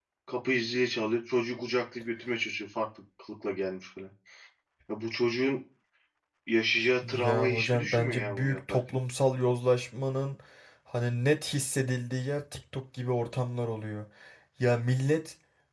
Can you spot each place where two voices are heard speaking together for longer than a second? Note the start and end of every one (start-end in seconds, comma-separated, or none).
7.1-9.0